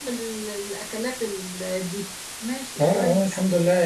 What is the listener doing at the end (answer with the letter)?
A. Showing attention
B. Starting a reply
B